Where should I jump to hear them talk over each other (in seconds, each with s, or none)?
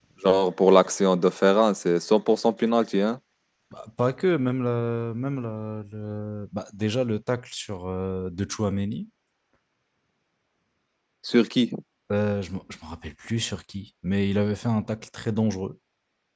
none